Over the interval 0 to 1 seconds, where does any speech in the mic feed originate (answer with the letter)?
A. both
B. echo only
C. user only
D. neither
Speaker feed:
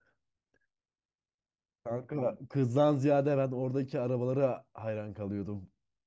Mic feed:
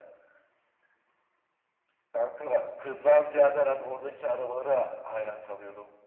D